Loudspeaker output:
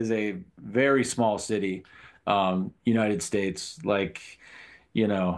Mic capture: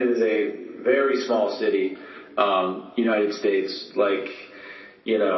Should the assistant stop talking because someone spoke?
No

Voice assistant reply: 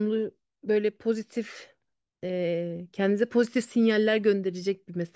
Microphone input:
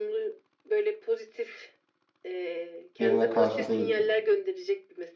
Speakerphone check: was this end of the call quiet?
No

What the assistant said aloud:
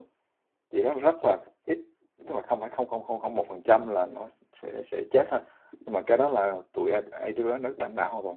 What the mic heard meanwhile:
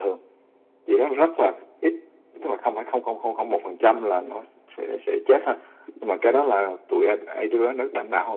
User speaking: No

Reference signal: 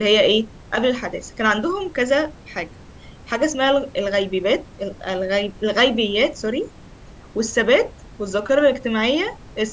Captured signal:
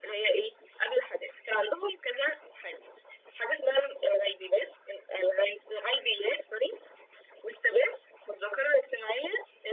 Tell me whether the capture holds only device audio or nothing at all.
Yes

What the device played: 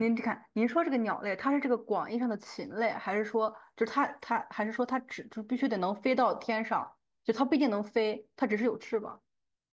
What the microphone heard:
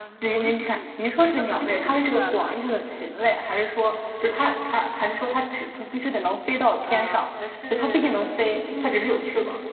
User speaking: Yes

